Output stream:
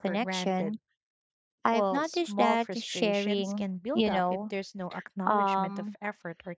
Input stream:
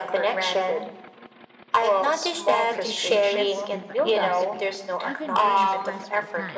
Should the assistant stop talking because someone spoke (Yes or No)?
Yes